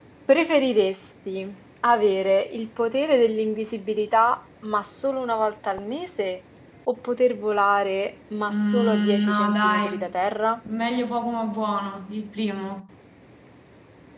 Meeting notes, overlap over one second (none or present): present